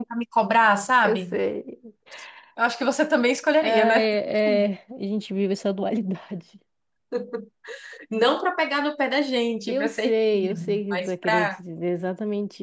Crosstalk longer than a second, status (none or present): present